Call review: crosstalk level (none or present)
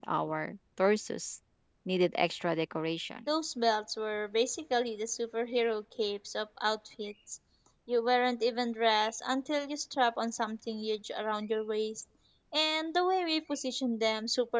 none